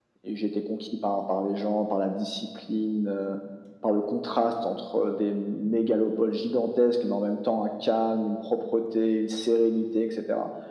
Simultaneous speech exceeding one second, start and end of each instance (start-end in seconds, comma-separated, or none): none